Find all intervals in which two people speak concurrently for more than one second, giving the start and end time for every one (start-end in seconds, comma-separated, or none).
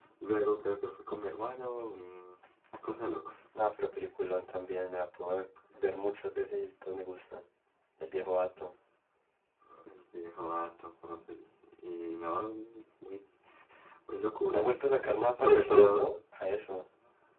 14.5-16.2